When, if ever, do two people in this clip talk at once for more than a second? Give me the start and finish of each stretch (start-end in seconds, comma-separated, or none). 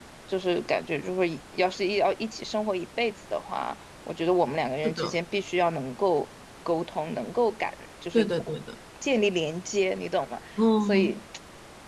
none